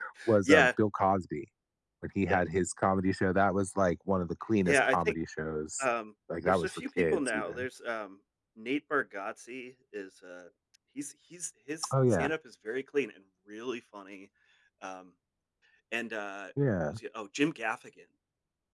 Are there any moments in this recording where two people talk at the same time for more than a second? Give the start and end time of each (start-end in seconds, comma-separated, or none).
6.5-7.7